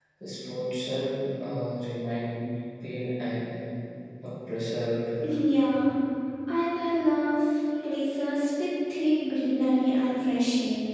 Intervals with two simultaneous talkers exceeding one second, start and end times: none

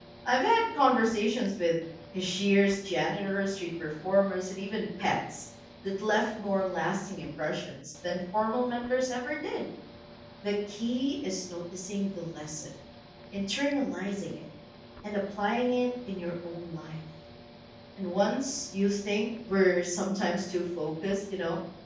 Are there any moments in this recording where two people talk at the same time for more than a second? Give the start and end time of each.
none

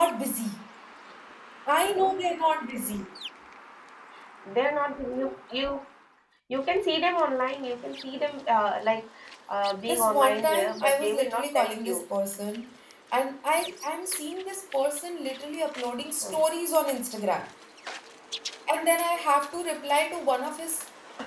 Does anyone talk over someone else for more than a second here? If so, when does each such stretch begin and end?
9.9-12.0

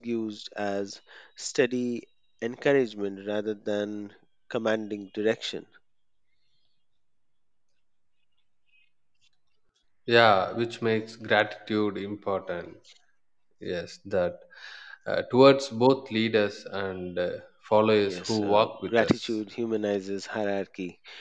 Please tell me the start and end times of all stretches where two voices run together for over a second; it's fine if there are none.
18.0-19.3

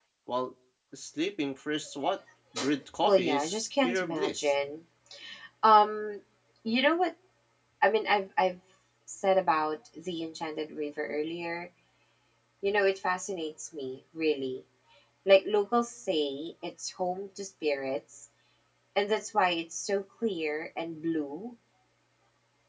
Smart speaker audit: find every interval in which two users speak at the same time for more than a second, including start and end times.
3.0-4.5

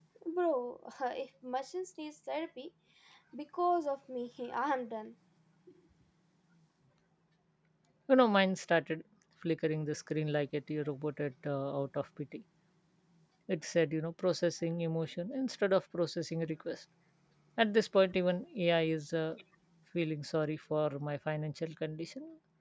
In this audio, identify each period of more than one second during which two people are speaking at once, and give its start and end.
none

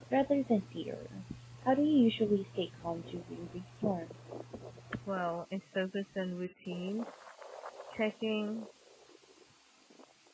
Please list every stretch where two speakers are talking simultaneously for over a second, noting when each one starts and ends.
none

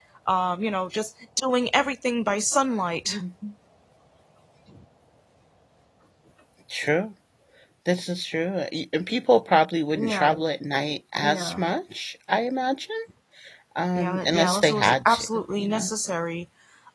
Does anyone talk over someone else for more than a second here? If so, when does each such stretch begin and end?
13.9-15.9

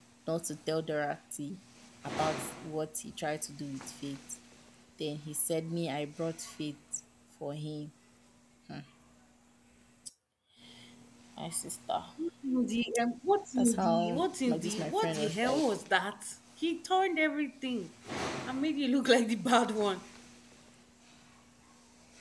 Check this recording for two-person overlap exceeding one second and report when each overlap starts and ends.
13.6-15.6

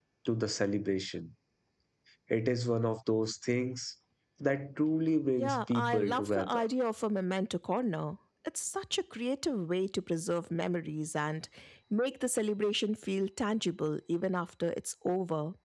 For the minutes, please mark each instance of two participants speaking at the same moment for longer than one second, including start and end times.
5.4-6.6

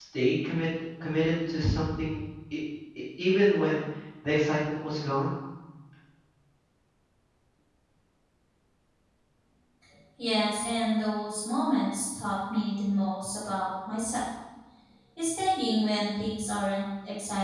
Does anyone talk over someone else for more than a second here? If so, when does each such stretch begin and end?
none

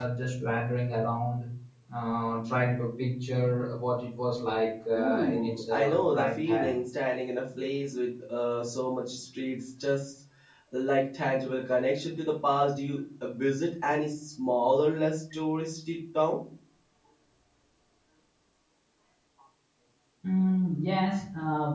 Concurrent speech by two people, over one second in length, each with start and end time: 5.0-6.7

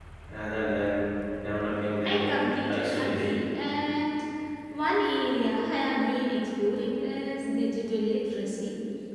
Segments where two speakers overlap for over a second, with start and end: 2.0-3.3

